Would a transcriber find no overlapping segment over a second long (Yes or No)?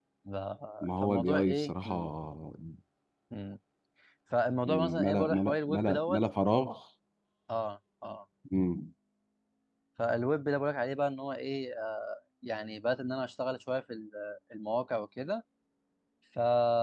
No